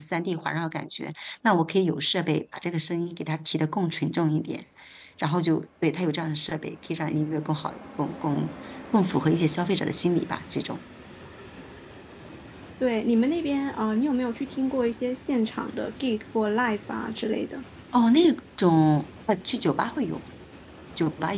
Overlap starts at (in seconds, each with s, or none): none